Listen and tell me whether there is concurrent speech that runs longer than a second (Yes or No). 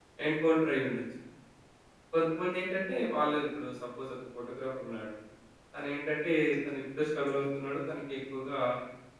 No